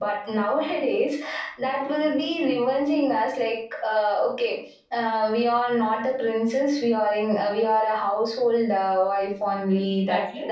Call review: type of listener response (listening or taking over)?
taking over